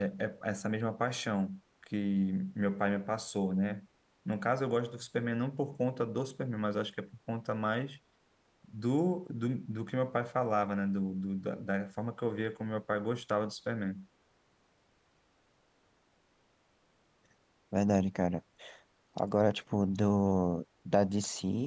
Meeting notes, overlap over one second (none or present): none